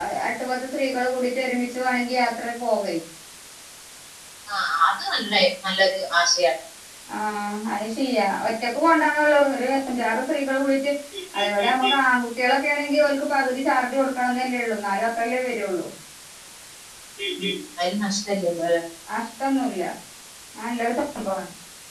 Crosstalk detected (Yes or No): No